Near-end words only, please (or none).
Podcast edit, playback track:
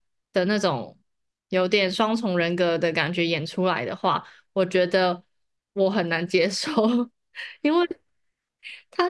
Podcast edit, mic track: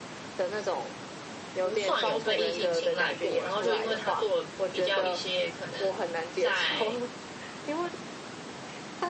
不算有被异性青睐过，然后就因为他做了比较一些可能在